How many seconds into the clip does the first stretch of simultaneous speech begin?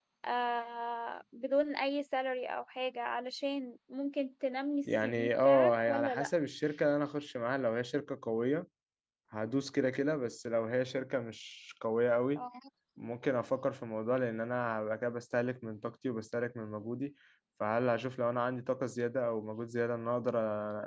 4.8 s

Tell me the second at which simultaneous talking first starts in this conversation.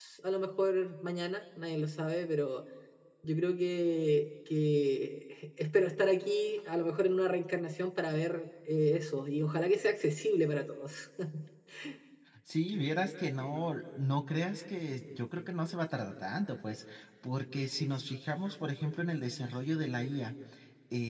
none

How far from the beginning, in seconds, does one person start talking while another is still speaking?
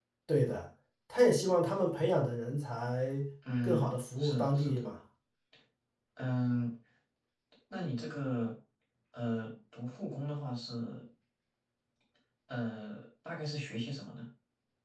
3.6 s

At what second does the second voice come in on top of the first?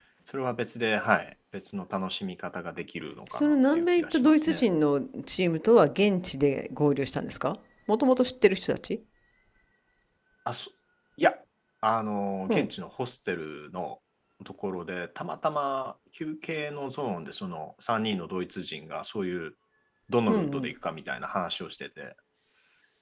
3.3 s

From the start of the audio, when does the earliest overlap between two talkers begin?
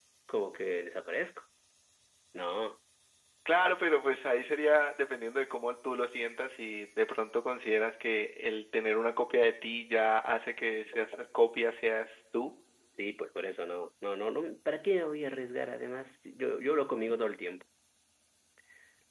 none

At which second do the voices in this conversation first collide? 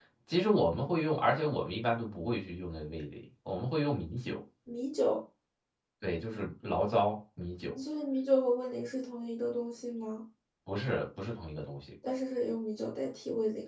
none

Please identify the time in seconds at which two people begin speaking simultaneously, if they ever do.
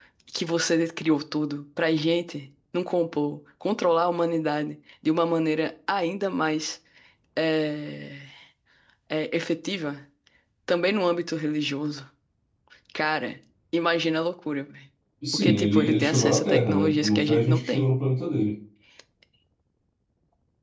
15.3 s

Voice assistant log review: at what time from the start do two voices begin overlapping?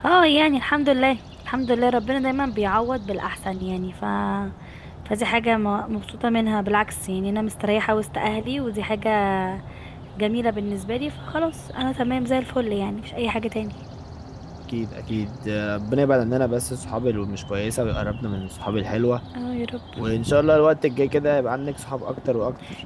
none

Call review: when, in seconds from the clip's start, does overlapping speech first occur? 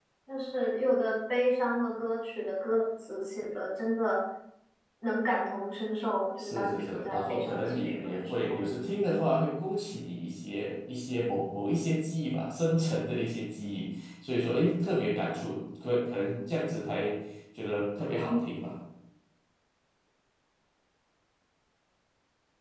6.4 s

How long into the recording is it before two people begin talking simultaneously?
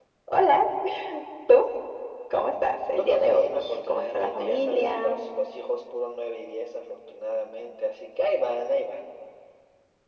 3.0 s

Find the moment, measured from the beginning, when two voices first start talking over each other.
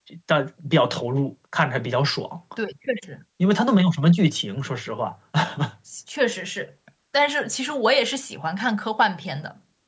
none

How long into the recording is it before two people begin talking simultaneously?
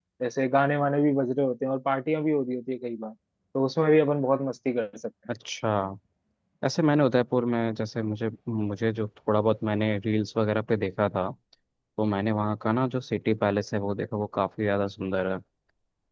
none

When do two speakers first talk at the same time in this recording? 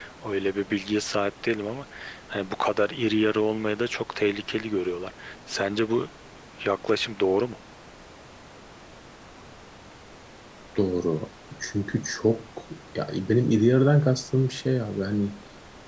none

